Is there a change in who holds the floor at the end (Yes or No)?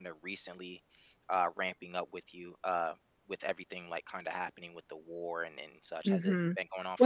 Yes